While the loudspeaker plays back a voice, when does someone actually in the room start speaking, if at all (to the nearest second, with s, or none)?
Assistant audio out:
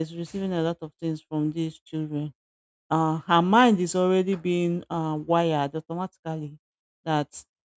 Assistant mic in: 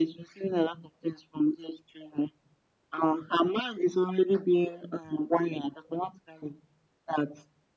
none